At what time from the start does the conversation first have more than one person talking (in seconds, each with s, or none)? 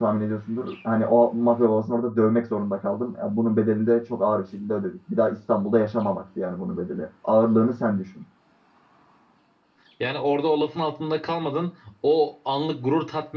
none